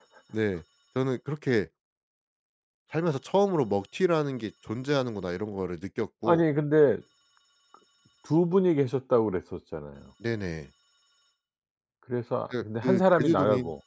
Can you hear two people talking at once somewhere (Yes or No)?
Yes